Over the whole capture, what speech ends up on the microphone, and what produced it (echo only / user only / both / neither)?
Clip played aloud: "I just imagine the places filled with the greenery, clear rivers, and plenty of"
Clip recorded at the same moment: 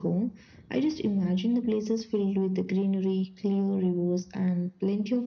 echo only